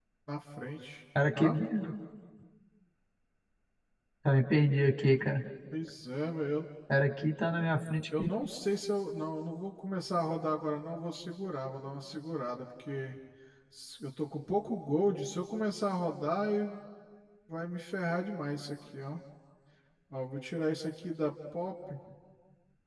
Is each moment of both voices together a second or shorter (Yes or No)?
Yes